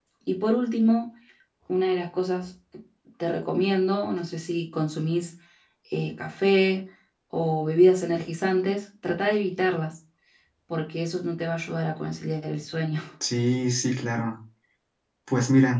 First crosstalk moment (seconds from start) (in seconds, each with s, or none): none